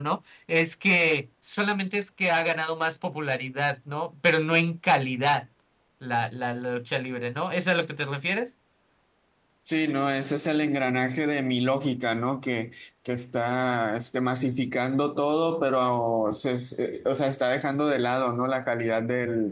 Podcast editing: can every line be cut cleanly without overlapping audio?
Yes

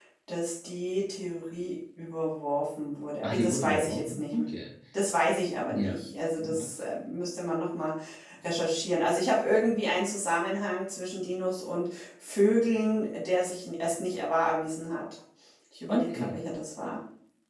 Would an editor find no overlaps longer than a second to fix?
No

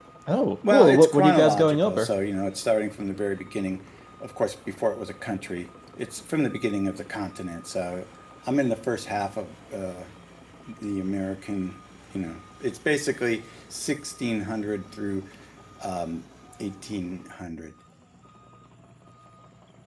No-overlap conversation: No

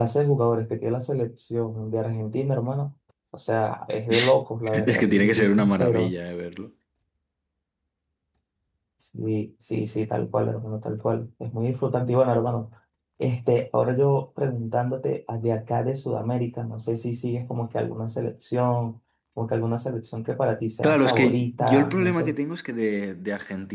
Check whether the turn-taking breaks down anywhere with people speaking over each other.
Yes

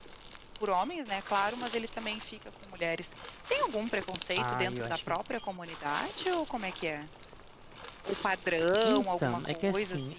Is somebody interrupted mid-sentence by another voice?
Yes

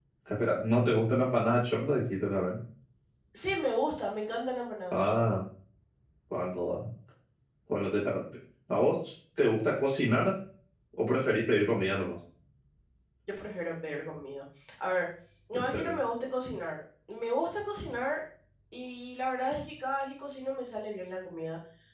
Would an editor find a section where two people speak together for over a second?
No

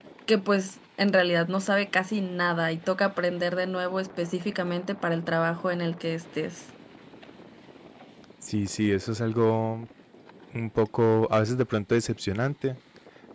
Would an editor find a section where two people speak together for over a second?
No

